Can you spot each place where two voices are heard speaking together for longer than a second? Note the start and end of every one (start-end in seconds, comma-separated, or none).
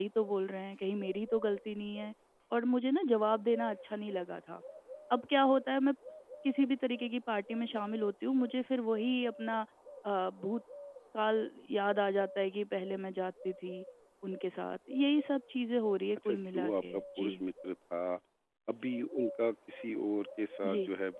16.2-17.4